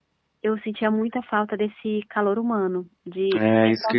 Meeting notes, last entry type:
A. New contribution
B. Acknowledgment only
A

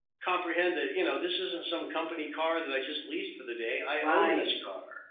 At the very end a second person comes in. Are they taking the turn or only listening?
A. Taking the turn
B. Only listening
A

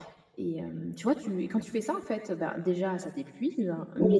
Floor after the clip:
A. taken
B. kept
B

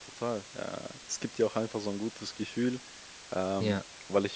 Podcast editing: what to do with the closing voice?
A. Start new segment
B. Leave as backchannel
B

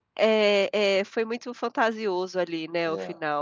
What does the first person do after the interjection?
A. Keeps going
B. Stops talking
B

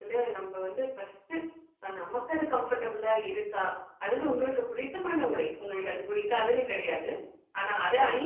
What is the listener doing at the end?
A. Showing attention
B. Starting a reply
A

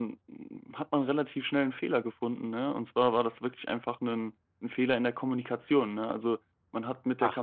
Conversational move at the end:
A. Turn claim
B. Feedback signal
B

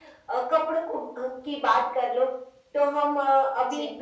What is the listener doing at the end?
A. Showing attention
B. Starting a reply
A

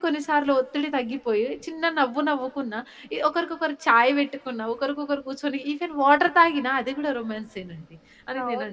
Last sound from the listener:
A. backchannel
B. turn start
B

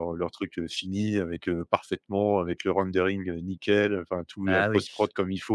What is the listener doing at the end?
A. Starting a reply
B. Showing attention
B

